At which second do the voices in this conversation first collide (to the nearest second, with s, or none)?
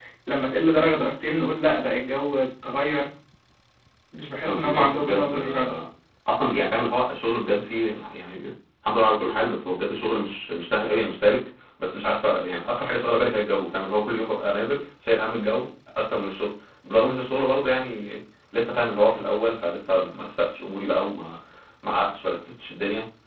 4 s